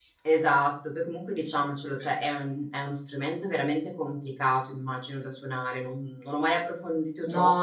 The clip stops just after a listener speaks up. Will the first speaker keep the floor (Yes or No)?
No